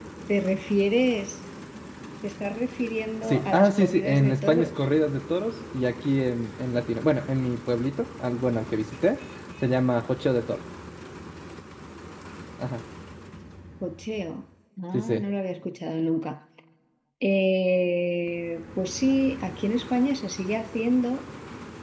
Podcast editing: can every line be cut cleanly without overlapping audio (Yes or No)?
No